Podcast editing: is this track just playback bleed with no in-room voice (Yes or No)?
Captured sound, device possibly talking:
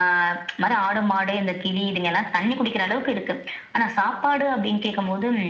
Yes